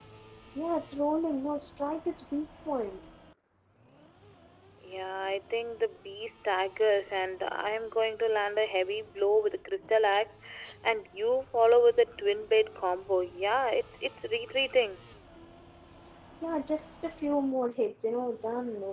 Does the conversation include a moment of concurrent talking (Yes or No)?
No